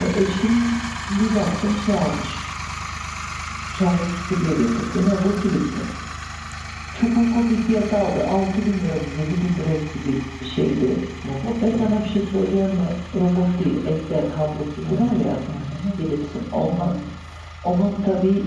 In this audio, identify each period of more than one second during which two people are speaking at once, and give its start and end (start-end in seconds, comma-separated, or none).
none